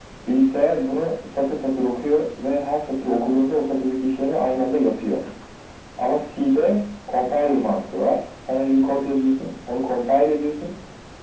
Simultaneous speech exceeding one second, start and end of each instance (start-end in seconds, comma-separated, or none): none